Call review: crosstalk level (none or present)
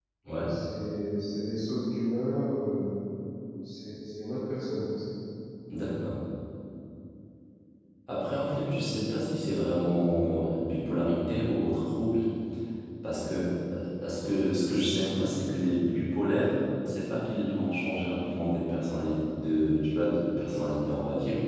none